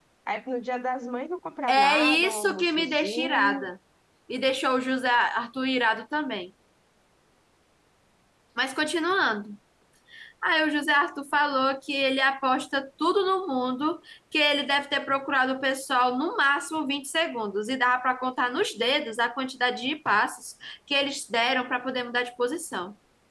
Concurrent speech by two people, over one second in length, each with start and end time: 1.7-3.7

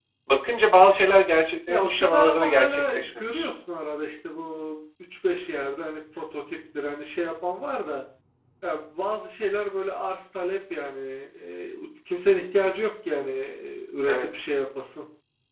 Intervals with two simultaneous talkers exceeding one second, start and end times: 1.7-3.5

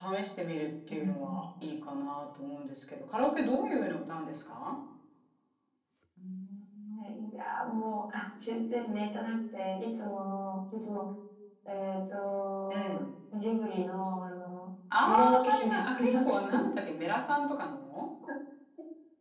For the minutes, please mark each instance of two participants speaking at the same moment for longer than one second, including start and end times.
15.0-16.6

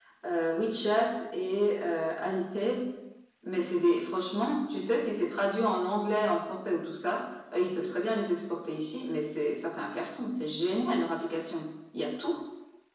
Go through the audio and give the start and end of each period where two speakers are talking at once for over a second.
none

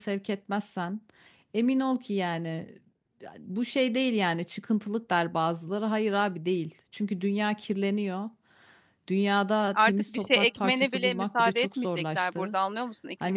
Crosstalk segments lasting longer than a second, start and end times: 9.7-12.6

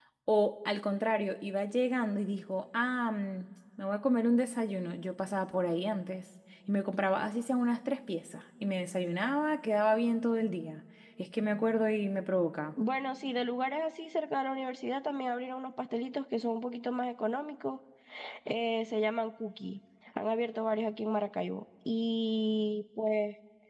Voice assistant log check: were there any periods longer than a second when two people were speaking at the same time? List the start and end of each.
none

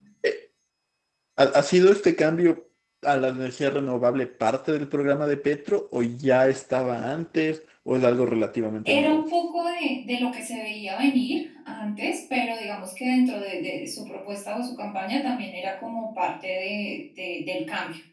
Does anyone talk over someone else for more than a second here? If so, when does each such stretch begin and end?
none

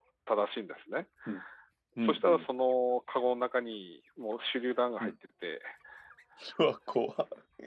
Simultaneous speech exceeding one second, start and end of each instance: none

